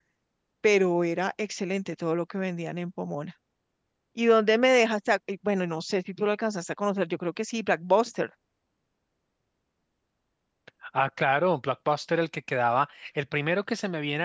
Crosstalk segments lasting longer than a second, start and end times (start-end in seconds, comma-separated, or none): none